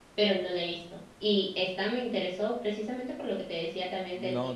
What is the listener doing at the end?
taking over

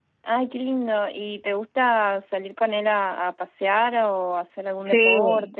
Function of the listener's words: taking over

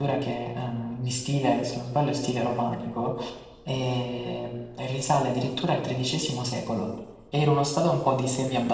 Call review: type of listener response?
listening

